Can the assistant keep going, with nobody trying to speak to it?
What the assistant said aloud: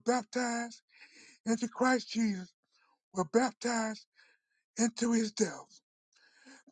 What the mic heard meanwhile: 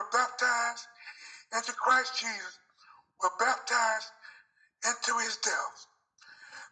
Yes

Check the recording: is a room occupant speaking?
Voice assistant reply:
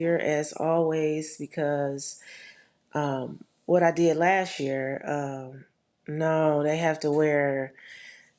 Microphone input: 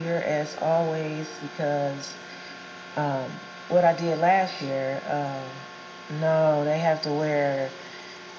No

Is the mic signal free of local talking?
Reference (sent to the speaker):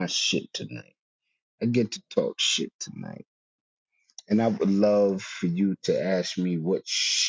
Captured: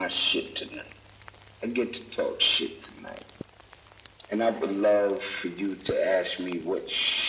Yes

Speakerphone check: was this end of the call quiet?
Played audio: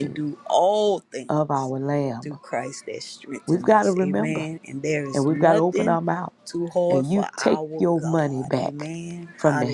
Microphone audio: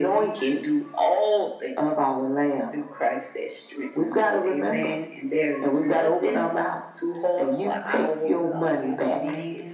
No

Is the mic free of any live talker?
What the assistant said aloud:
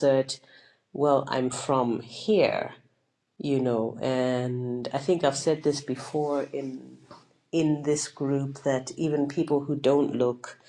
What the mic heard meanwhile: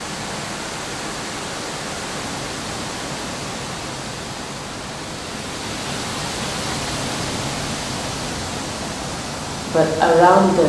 No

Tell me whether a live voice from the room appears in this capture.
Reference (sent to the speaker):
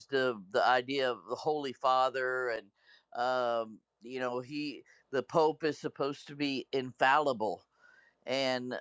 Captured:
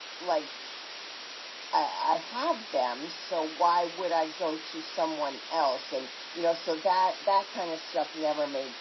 Yes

